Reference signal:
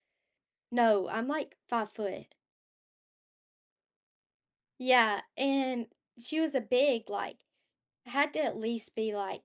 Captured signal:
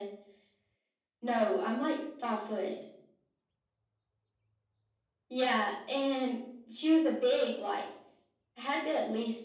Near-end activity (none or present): none